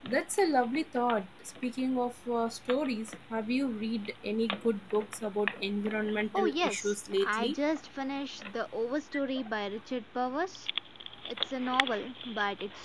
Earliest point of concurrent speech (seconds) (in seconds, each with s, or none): 6.3 s